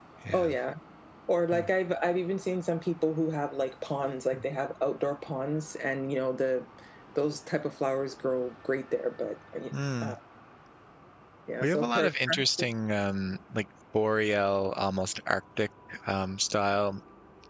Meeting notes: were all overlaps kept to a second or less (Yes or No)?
Yes